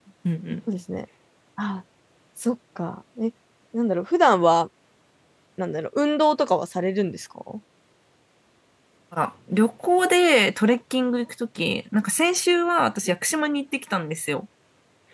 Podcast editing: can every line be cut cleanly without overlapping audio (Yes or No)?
Yes